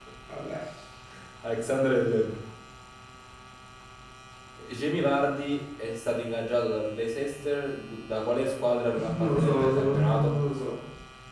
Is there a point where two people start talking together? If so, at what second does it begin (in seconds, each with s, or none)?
9.2 s